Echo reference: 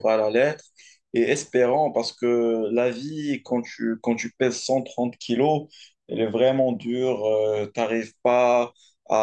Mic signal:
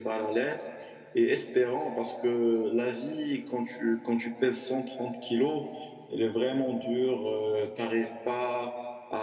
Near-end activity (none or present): none